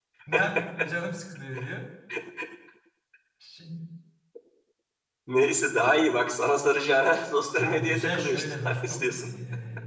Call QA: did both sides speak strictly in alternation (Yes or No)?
No